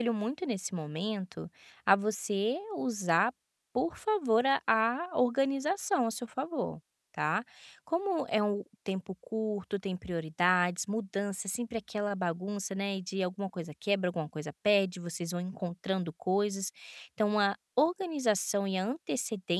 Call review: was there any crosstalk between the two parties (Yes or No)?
No